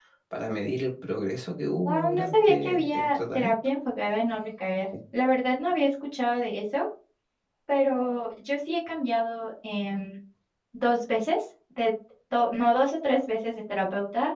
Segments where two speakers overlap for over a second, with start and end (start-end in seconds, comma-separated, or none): 1.9-3.5